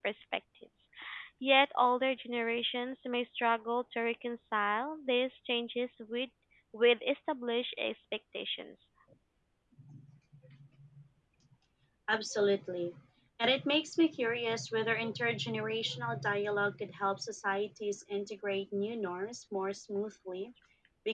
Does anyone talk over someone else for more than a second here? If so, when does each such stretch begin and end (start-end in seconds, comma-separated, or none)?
none